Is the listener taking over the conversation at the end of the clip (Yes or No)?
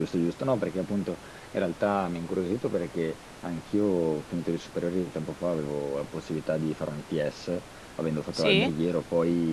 No